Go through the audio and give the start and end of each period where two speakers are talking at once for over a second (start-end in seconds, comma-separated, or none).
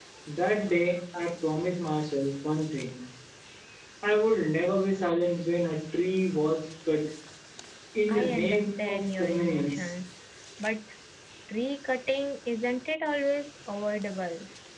8.1-9.9